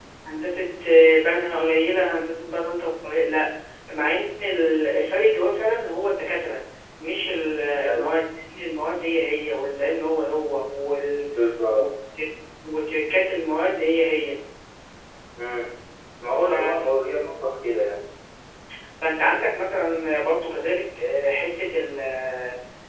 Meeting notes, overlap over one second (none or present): none